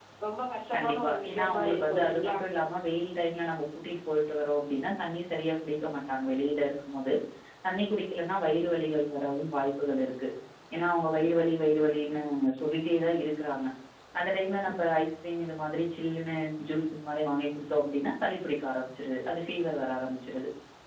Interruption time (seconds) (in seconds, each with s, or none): 0.8 s